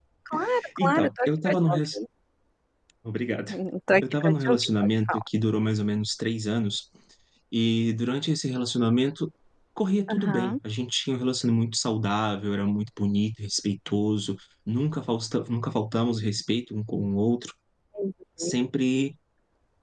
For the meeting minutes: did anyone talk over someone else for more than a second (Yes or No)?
Yes